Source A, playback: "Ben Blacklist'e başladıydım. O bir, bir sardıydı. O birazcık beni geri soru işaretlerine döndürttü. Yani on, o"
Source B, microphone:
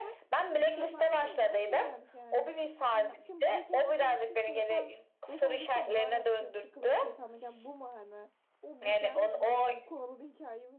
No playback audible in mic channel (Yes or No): No